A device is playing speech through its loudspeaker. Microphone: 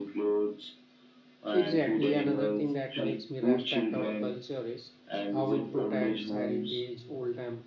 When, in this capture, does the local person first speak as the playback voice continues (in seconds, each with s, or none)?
1.5 s